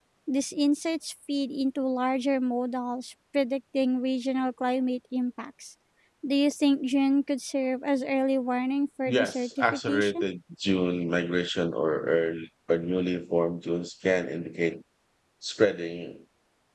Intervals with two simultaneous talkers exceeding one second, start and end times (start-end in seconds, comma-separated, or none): 9.0-10.3